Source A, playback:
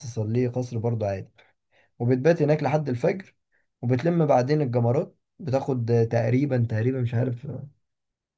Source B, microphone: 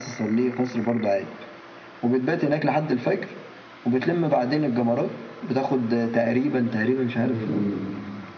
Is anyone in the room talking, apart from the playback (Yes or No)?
Yes